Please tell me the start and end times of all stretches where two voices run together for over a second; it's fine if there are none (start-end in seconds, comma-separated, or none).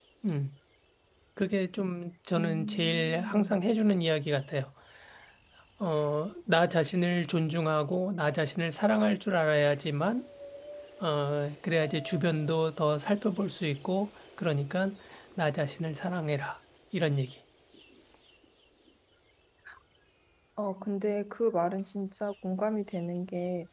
2.4-3.6